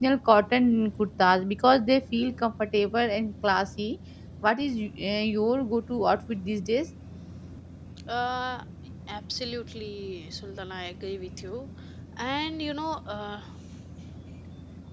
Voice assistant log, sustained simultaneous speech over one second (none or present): none